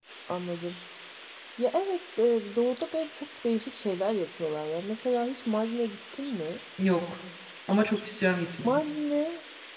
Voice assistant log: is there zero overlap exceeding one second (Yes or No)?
Yes